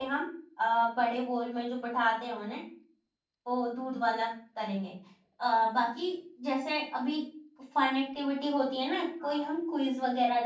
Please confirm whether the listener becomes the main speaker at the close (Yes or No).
No